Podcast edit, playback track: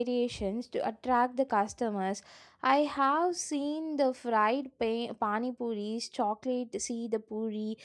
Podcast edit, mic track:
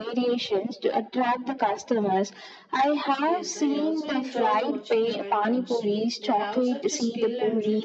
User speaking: Yes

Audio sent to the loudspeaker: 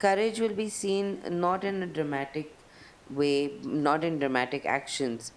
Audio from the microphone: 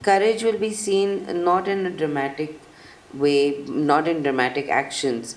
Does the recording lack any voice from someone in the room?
Yes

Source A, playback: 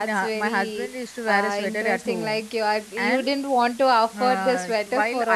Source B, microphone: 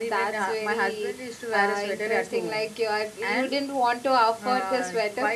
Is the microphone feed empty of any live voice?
Yes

